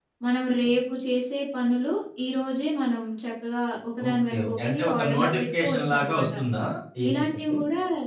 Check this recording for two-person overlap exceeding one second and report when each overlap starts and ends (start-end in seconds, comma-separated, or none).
4.1-6.3